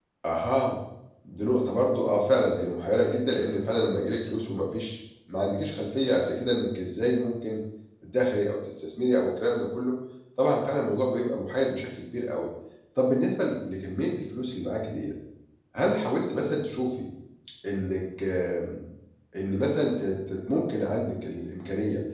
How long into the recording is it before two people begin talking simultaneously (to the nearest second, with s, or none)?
none